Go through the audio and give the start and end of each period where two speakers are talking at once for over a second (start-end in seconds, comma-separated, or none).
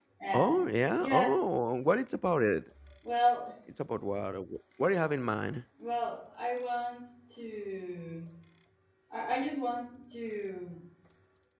none